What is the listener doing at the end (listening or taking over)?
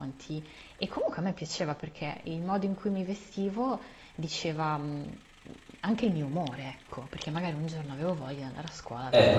taking over